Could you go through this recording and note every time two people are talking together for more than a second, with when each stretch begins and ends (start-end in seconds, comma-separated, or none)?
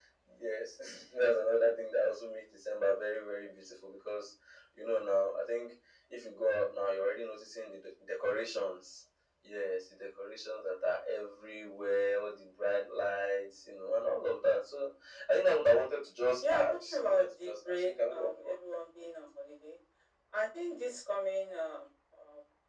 16.4-18.5